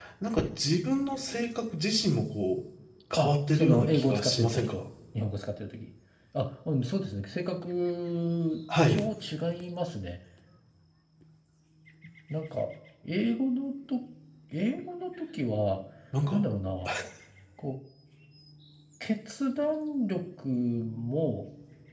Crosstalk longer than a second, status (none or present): present